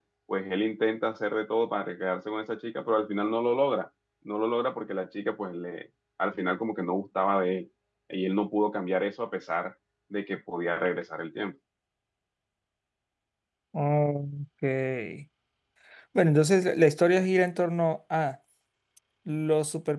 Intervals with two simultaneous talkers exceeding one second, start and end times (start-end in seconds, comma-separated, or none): none